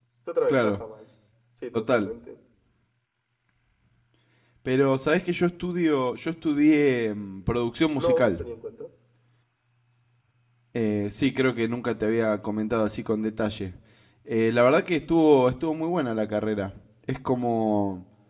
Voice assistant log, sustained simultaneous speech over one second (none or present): none